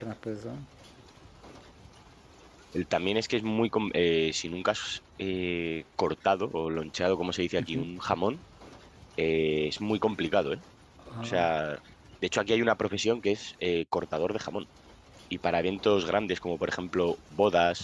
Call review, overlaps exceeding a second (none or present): none